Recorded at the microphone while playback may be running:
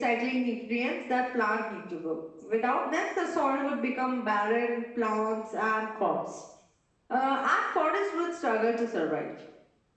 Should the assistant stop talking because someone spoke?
No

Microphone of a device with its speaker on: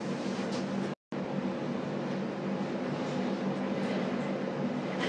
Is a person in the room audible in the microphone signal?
No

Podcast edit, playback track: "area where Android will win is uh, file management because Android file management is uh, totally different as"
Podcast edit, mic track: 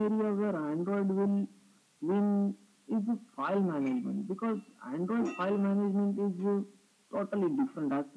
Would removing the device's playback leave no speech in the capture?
Yes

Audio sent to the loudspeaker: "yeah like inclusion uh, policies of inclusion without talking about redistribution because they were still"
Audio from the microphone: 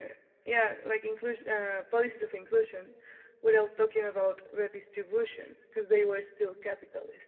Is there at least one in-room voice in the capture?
No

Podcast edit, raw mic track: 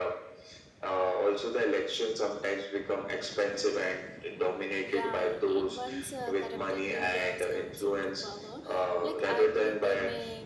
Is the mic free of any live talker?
No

